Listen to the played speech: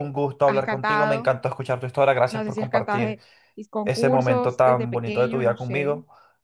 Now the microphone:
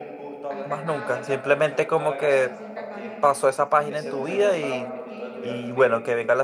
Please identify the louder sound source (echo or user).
user